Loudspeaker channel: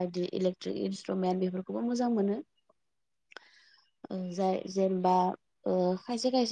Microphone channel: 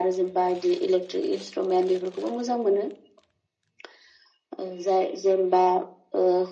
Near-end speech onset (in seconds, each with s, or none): none